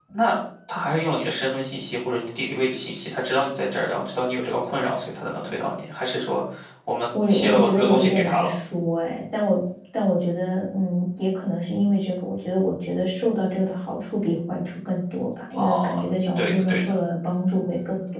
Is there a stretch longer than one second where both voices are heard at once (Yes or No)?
Yes